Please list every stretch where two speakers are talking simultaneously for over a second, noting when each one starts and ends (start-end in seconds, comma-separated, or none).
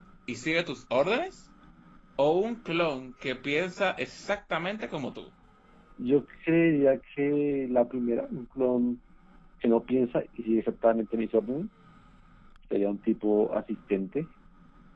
none